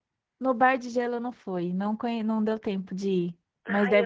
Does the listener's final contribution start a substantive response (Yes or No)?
Yes